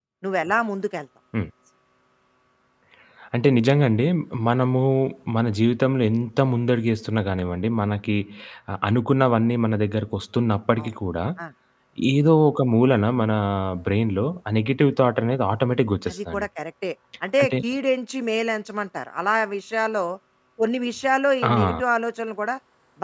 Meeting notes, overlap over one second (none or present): none